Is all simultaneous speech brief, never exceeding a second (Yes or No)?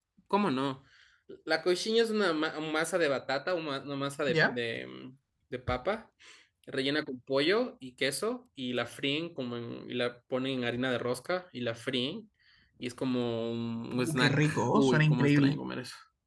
No